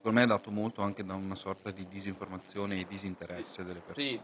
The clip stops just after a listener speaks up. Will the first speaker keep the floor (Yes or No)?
No